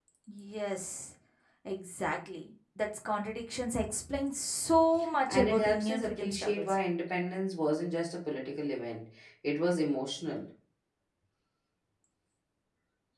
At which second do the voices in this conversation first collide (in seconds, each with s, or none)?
5.3 s